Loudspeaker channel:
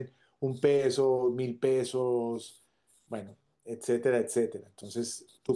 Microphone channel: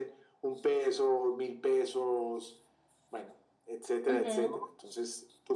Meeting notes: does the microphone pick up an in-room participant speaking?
Yes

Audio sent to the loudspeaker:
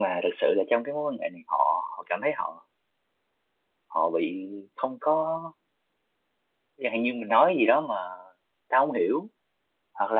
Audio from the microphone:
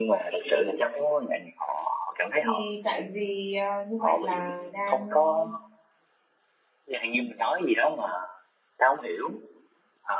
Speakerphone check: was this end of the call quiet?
No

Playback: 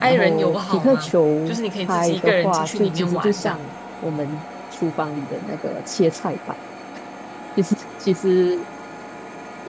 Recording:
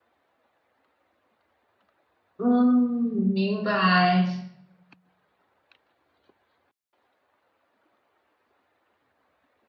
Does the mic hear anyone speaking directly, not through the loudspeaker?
Yes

